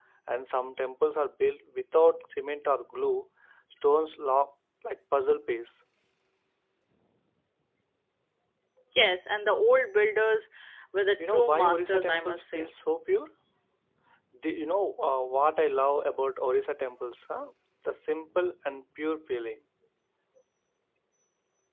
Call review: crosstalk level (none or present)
present